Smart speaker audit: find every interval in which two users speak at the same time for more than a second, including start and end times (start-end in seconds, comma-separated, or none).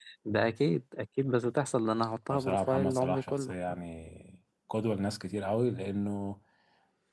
2.3-3.5